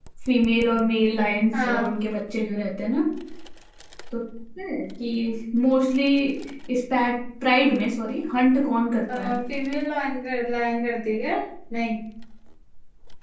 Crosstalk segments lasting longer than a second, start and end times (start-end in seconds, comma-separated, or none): none